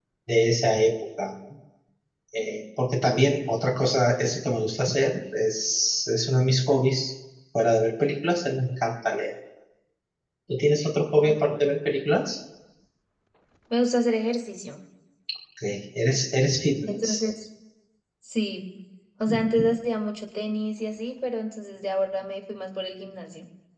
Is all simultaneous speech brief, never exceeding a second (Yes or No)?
Yes